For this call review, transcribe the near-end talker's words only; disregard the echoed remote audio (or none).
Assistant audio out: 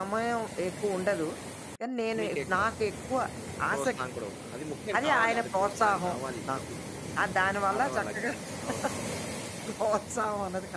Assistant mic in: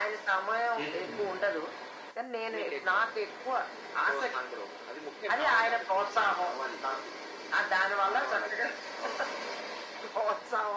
చేర్చుకుంటారు.